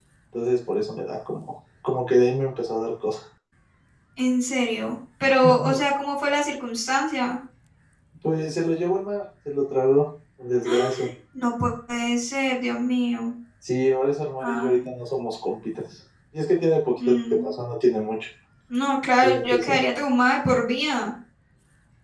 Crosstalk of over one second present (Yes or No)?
No